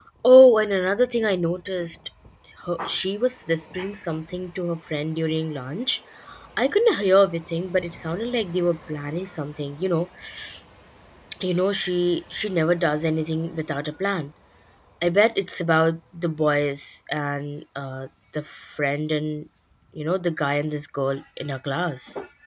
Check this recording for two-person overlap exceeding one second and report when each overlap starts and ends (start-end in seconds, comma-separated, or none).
none